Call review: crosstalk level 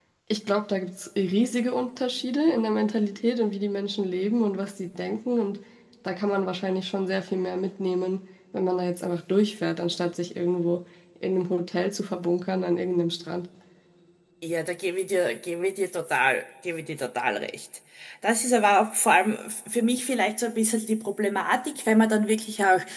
none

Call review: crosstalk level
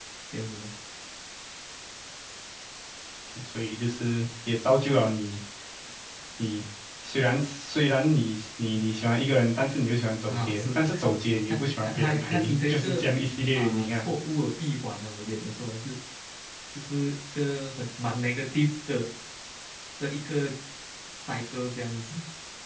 present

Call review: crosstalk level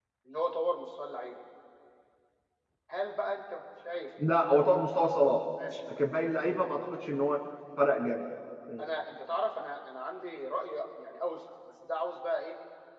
none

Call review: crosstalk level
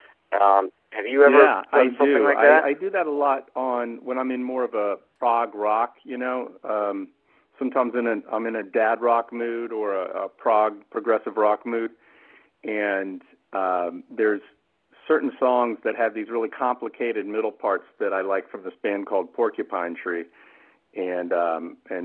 present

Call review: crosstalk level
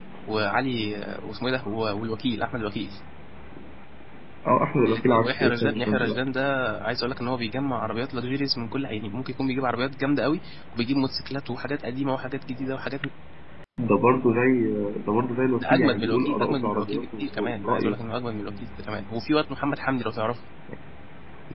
present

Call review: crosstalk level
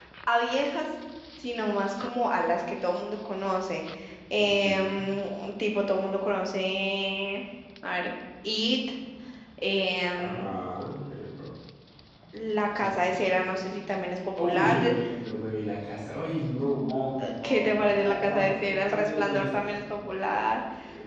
present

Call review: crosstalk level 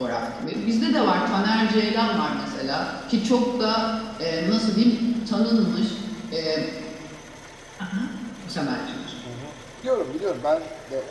none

